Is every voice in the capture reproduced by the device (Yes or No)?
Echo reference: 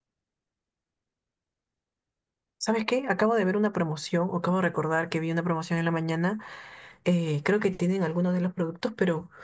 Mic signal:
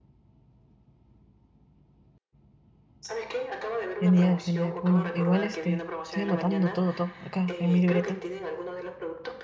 No